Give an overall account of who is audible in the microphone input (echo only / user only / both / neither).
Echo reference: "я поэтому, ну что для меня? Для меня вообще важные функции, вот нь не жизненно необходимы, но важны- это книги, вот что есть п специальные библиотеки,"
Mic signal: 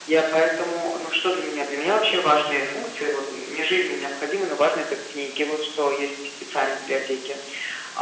echo only